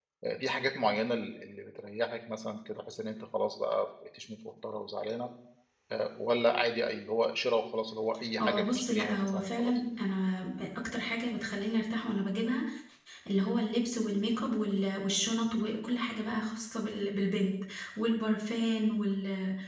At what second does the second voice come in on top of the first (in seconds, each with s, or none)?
8.4 s